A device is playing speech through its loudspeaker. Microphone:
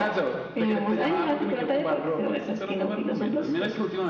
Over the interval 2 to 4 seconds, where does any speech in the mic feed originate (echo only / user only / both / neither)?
echo only